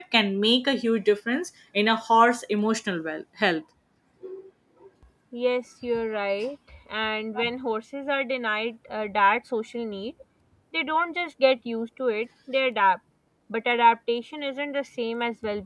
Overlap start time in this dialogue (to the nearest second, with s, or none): none